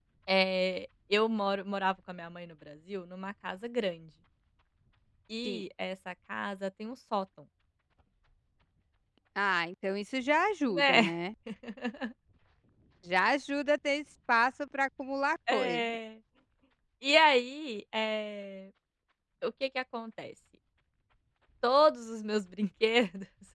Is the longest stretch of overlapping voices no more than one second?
Yes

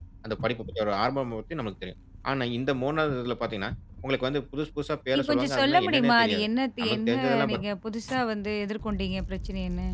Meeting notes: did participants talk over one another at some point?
Yes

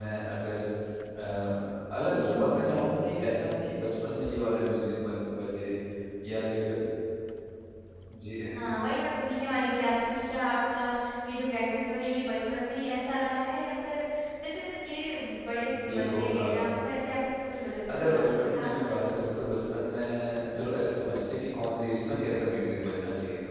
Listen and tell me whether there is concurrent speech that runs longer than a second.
Yes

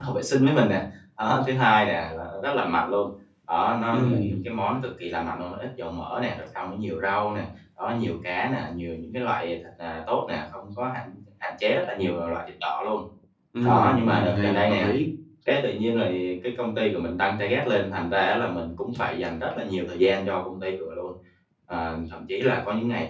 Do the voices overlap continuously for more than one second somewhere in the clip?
Yes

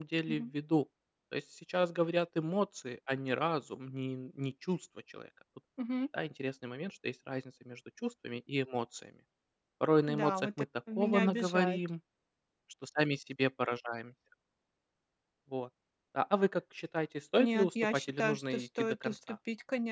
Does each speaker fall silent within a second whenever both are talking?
No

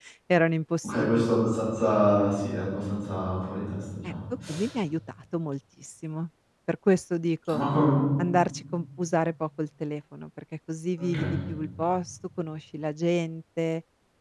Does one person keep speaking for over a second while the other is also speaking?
No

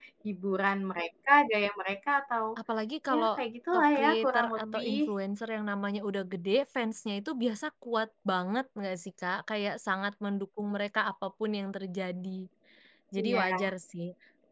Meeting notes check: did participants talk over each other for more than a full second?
Yes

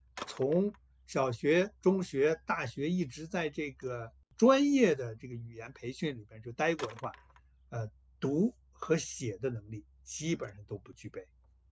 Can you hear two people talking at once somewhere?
No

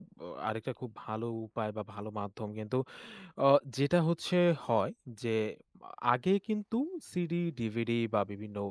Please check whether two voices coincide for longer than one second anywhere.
No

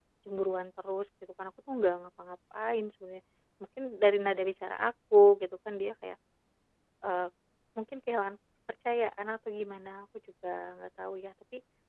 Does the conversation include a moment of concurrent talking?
No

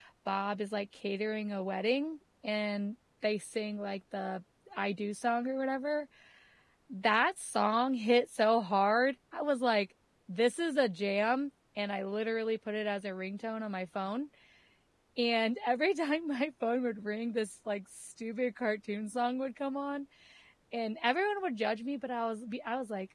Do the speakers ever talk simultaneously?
No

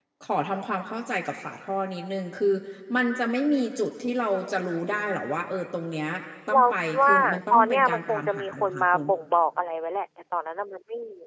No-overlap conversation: No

